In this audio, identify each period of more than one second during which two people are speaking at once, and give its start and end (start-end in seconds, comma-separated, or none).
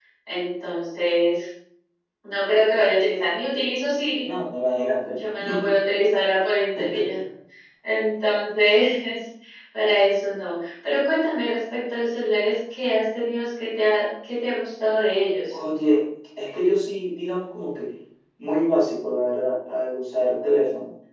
none